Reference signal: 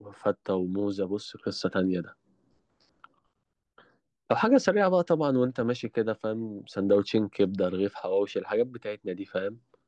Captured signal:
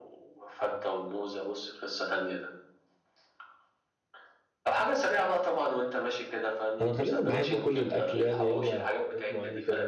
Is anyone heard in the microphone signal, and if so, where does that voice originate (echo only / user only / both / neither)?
both